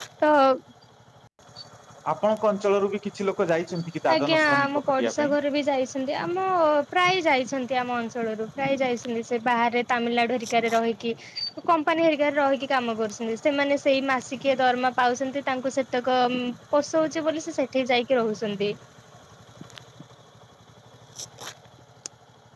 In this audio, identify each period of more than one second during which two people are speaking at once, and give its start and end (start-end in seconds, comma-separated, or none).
4.1-5.3